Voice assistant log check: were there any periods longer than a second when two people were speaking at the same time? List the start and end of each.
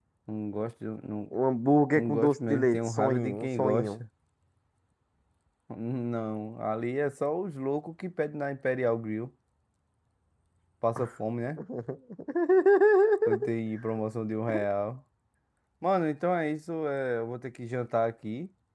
1.9-4.0

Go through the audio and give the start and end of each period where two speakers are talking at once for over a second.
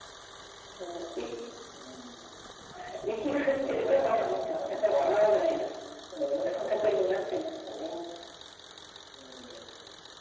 3.7-5.3

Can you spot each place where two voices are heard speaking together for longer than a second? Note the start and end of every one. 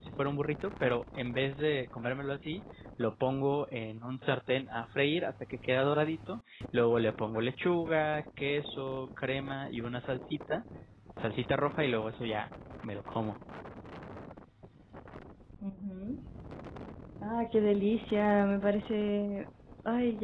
none

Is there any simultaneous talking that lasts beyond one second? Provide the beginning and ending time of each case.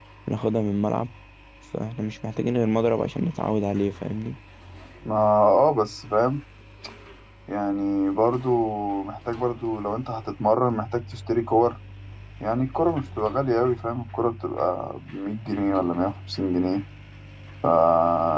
none

